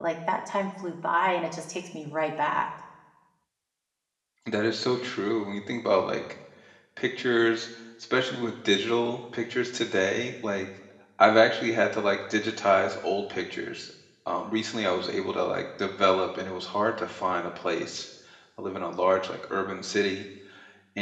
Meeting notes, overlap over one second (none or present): none